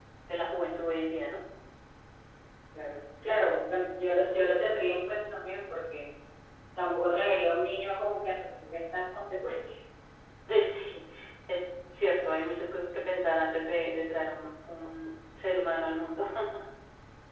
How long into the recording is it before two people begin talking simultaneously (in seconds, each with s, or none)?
none